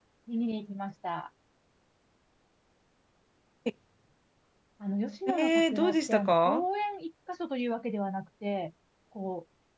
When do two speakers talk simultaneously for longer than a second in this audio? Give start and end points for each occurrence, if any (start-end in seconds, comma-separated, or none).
5.3-6.6